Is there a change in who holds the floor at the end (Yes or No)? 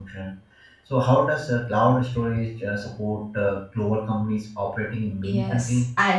Yes